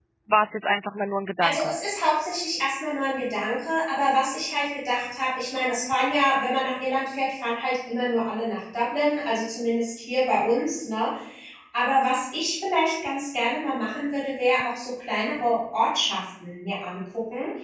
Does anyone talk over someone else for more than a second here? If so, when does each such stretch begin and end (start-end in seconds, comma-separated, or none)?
none